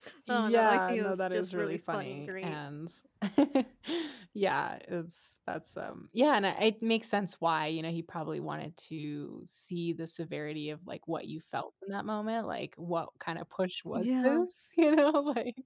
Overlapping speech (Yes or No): Yes